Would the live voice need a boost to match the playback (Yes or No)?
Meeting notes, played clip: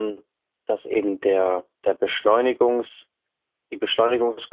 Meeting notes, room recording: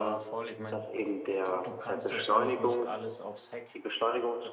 Yes